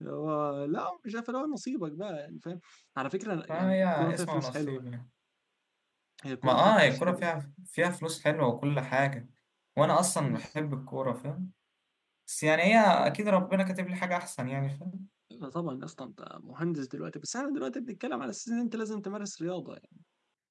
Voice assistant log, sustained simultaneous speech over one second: present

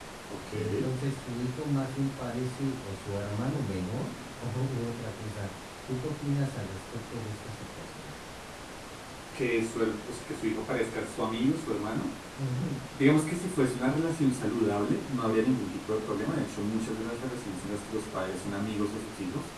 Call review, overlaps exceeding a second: none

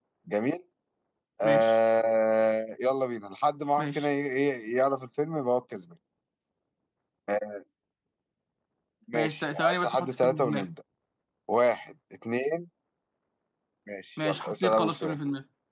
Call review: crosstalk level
present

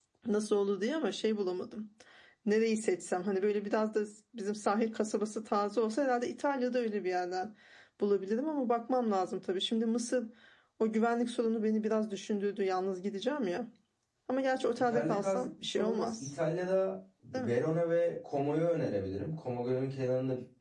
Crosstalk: present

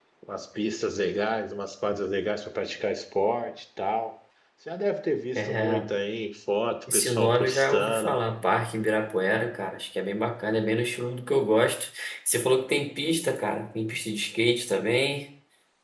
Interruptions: present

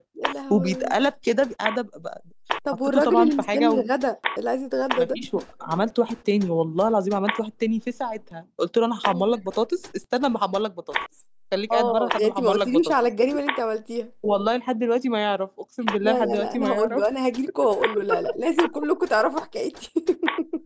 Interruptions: present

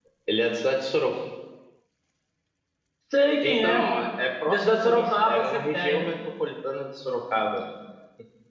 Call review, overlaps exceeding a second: present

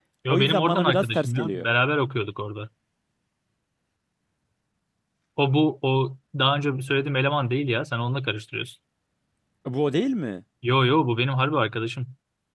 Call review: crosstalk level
present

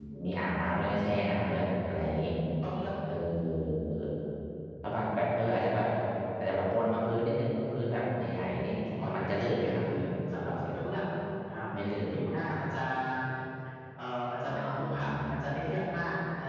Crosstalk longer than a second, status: present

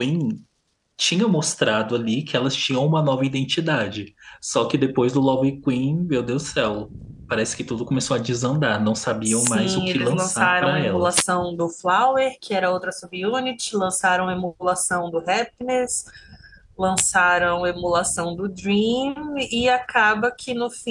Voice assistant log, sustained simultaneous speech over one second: present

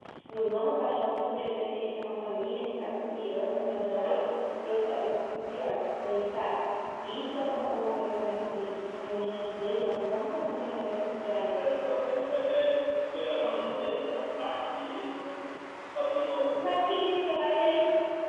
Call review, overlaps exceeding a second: none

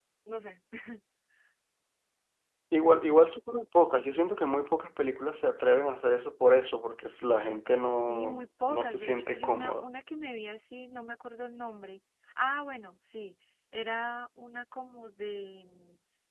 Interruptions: present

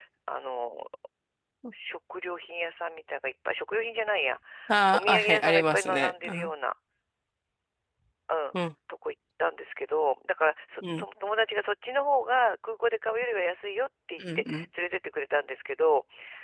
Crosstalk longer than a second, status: present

